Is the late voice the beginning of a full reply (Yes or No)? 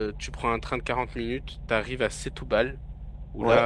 No